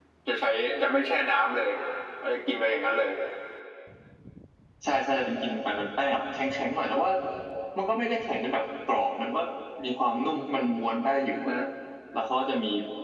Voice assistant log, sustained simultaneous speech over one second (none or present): none